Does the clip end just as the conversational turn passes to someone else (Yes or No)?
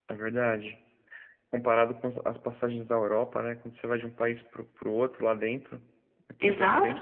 Yes